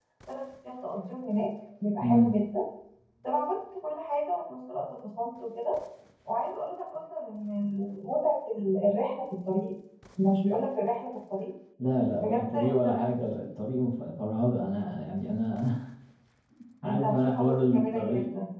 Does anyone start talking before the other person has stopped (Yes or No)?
Yes